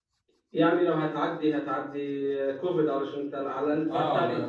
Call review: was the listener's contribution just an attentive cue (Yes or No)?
No